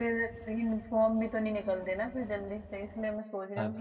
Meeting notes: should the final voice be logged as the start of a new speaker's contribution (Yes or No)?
No